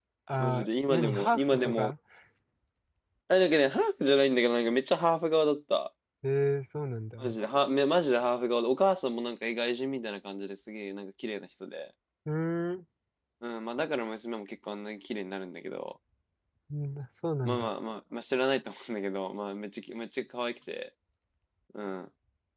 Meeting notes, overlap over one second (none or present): present